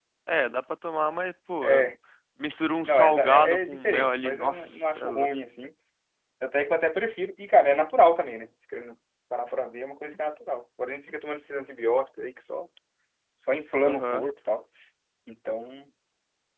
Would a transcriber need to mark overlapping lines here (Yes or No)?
Yes